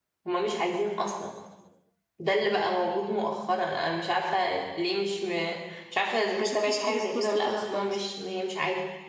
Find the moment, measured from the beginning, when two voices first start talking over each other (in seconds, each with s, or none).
6.4 s